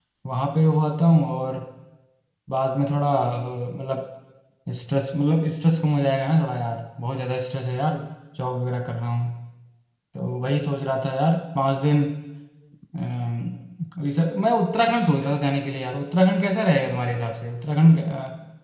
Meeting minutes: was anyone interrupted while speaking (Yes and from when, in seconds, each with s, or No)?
No